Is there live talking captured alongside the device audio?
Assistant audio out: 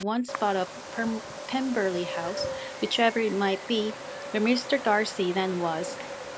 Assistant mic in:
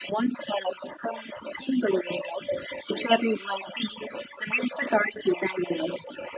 No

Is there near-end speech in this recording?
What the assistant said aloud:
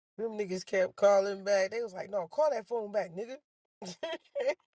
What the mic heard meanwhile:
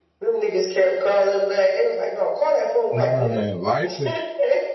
Yes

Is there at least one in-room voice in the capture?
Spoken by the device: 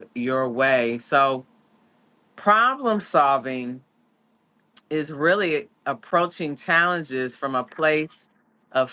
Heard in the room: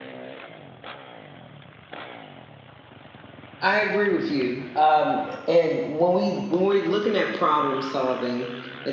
Yes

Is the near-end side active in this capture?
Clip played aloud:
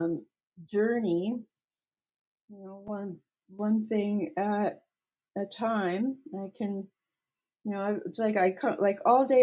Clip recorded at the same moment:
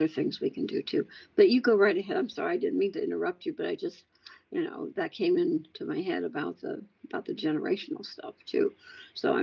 Yes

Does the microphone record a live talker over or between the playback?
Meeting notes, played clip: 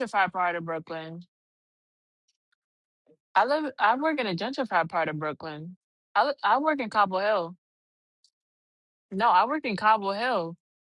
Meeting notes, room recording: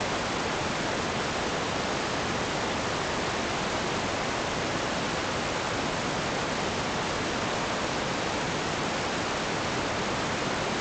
No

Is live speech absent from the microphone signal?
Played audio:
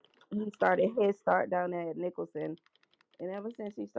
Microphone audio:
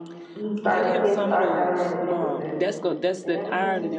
No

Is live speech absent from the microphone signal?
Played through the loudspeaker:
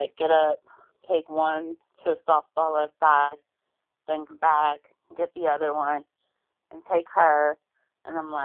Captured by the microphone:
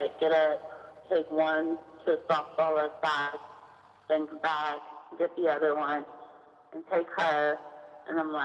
Yes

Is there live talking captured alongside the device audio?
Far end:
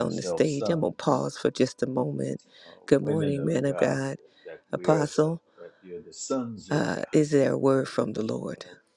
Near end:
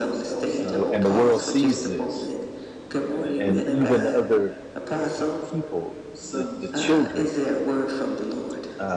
Yes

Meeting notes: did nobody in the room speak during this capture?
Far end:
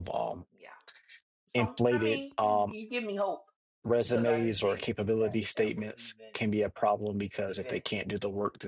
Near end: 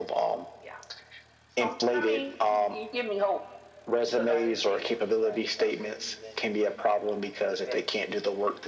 Yes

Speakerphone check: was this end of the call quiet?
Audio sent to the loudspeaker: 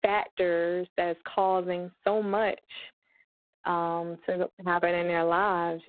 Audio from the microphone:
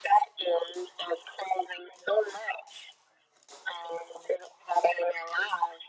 Yes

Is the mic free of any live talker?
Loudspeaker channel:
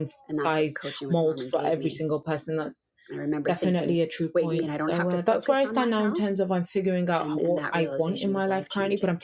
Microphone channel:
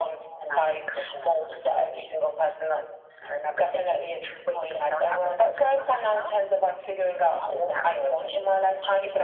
Yes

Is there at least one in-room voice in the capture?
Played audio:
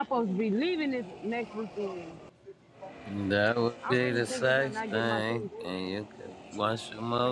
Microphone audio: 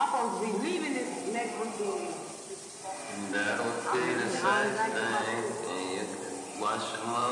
Yes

